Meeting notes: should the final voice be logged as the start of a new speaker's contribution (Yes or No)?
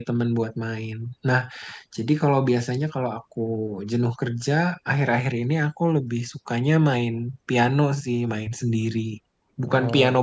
No